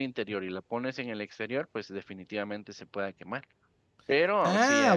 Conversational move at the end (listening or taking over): taking over